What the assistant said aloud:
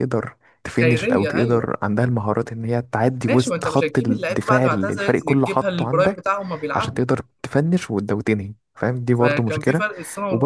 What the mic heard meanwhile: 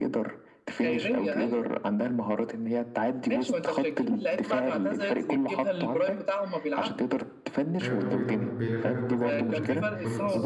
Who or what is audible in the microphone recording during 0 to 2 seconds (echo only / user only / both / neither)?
echo only